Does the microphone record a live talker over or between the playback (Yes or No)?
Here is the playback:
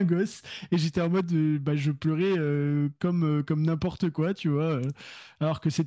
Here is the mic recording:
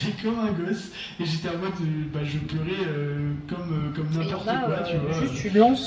Yes